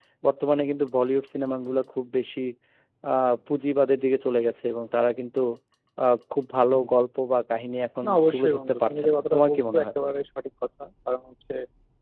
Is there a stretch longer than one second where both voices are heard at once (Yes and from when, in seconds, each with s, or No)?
Yes, from 8.0 s